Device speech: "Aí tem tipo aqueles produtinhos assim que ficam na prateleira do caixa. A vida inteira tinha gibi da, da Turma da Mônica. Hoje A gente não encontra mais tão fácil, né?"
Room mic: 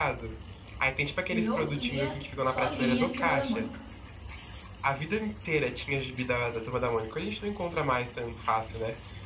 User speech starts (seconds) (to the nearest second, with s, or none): 1 s